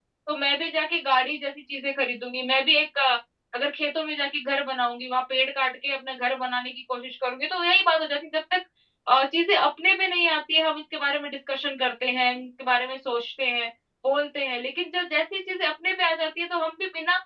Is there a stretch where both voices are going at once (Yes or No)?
No